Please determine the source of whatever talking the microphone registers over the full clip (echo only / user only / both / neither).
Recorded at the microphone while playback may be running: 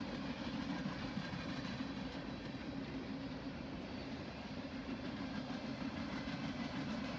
neither